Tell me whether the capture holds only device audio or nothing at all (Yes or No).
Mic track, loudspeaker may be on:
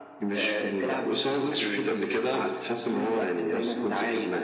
Yes